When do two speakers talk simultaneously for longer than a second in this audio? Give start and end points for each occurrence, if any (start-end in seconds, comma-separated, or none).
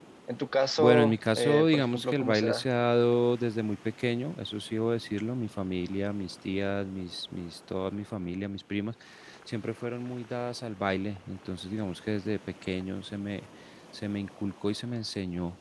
0.8-2.6